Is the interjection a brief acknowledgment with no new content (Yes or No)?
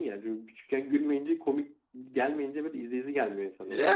No